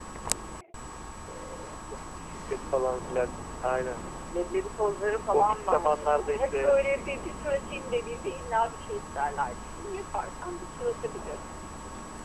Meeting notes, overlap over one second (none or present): present